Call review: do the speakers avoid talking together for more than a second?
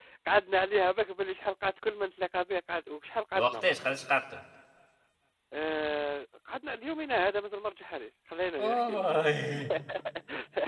Yes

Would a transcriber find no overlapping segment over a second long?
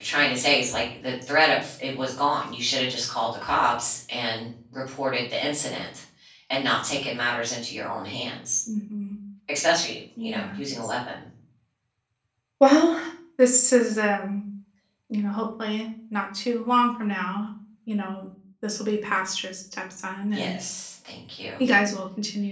Yes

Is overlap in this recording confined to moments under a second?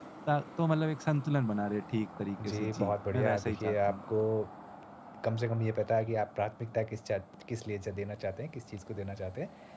No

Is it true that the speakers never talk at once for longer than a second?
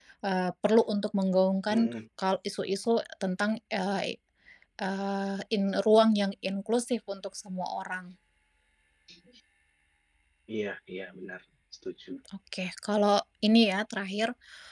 Yes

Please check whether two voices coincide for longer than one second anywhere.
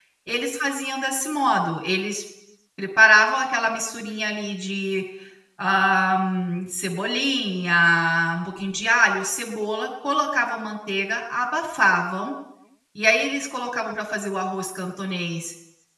No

